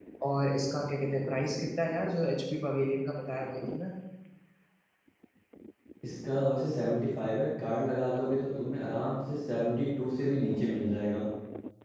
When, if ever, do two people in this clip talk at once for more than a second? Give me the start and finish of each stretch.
none

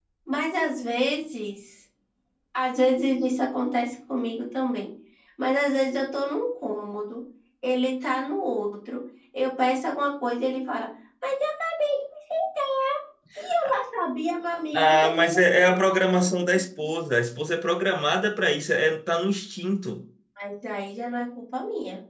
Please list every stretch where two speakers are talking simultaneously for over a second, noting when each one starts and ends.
14.7-16.9

